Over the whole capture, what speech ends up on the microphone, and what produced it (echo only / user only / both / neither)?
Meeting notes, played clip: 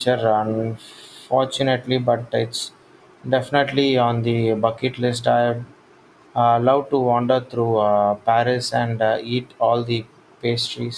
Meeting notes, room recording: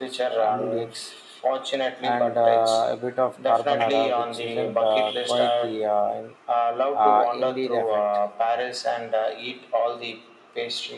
both